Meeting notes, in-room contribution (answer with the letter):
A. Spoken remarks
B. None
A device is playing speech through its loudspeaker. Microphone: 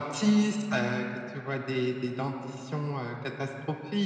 B